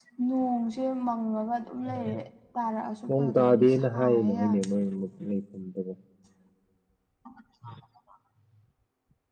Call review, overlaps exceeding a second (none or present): present